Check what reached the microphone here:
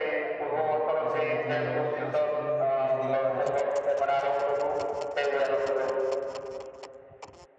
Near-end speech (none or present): present